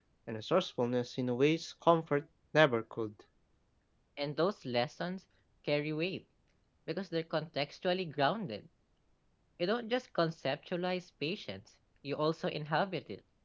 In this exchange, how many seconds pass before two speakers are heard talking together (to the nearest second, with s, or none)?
none